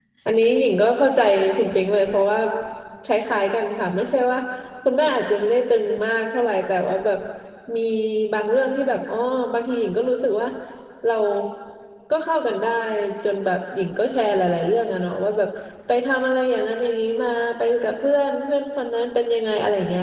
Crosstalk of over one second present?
No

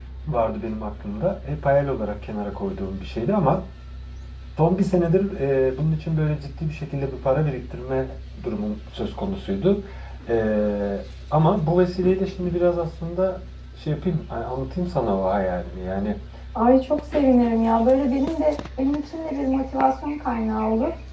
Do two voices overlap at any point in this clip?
No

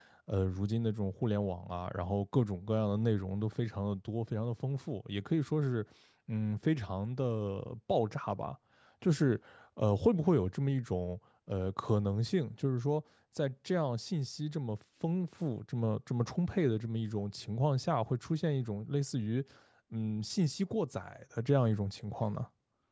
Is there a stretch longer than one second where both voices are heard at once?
No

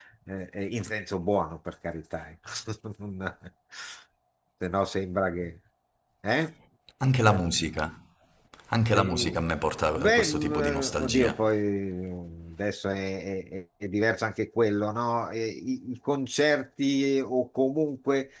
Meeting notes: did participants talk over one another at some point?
Yes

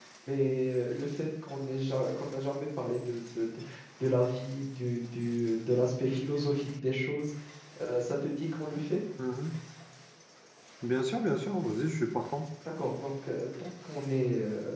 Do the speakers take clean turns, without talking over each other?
Yes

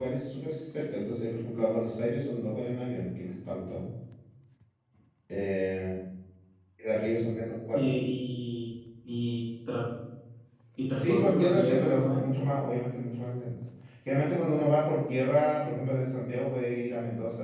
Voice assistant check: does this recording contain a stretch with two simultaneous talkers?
Yes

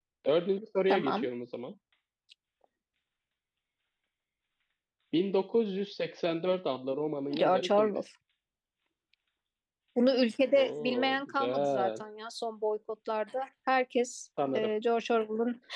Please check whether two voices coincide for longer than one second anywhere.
Yes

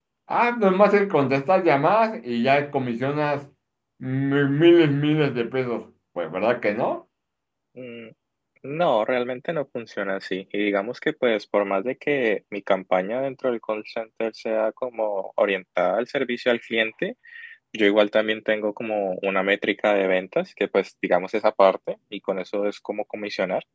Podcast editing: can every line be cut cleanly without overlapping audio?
Yes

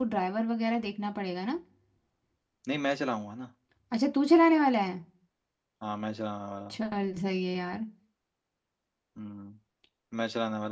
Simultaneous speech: No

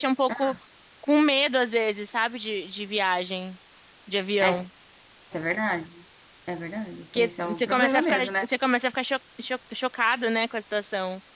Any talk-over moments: Yes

